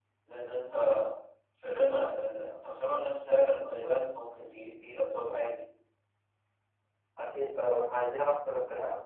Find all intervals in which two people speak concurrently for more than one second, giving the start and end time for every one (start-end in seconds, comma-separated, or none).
none